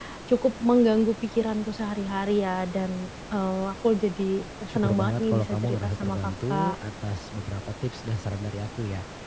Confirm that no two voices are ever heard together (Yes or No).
No